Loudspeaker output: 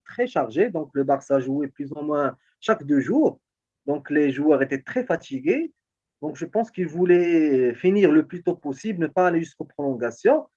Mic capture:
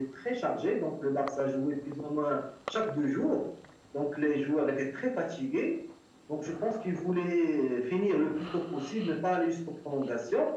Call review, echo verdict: present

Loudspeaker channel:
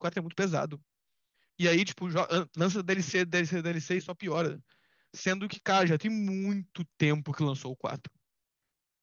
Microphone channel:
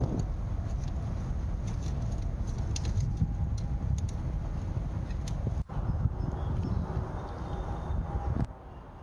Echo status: none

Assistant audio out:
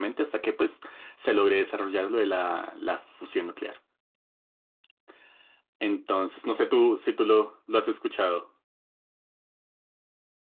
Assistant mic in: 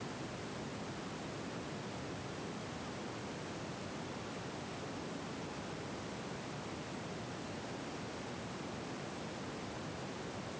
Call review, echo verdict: none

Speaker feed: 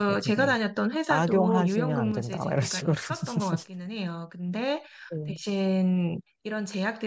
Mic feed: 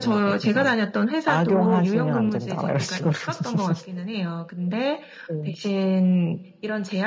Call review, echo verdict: present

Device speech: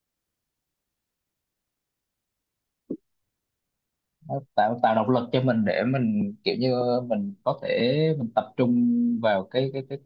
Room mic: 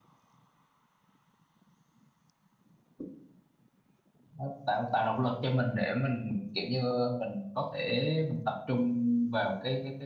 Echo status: present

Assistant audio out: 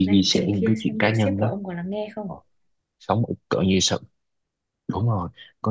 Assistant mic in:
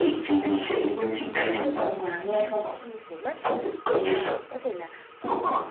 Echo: present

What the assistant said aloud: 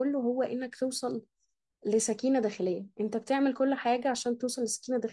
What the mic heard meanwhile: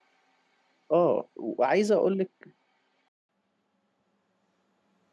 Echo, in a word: none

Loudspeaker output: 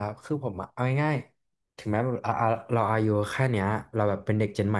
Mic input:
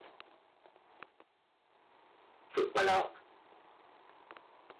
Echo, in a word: none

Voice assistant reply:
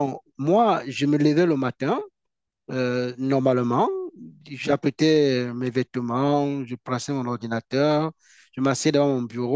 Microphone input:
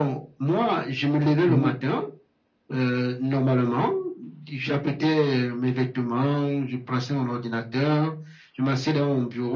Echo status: present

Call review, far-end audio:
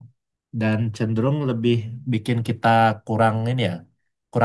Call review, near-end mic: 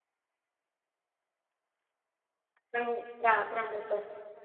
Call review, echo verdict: none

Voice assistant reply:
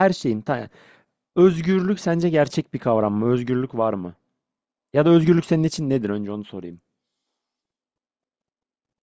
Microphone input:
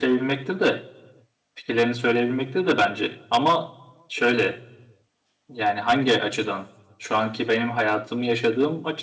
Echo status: none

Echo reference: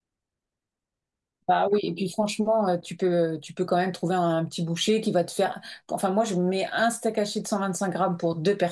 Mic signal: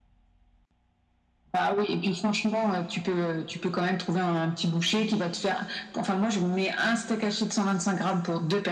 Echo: present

